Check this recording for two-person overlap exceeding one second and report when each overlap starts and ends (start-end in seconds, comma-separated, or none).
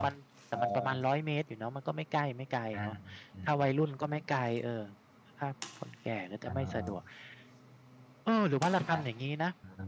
none